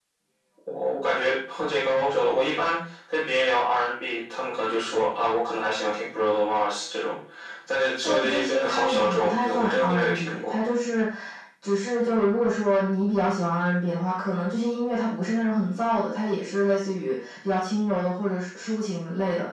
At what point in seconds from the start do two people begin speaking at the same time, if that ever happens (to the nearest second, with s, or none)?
8 s